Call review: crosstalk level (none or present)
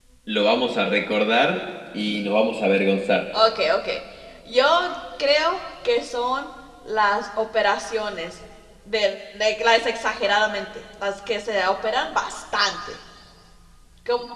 none